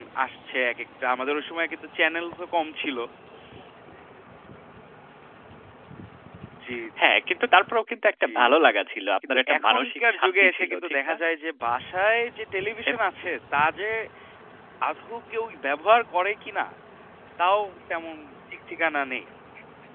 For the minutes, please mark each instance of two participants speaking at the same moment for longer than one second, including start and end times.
9.5-11.2

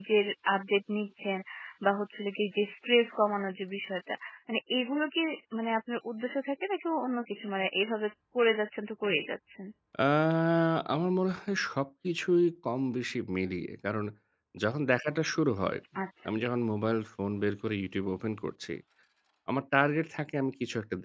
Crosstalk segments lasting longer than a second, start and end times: none

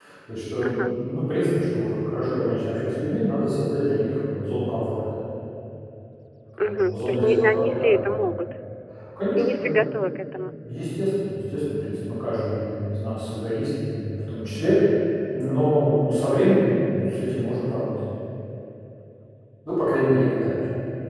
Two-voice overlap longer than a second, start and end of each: 6.6-8.1

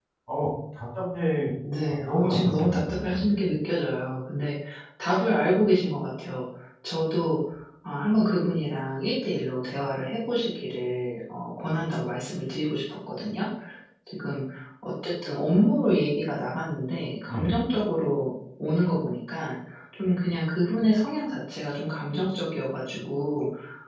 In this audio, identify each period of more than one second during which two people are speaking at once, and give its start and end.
1.9-3.2

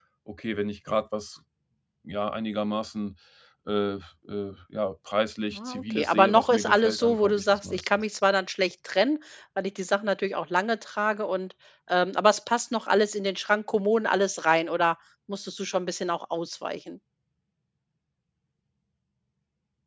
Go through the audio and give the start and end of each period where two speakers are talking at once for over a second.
5.5-7.9

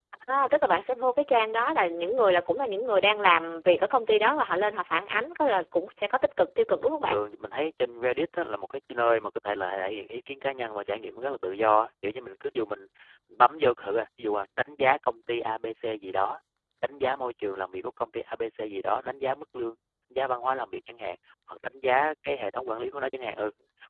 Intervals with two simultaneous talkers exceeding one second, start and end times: none

